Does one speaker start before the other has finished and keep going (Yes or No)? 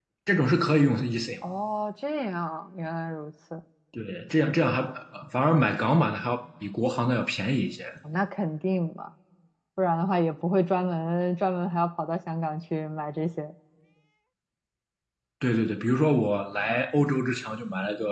No